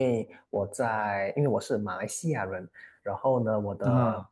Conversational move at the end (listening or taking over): listening